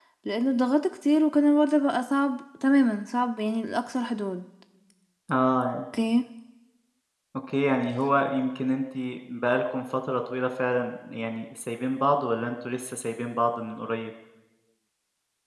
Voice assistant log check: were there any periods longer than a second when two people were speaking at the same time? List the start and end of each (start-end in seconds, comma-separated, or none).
none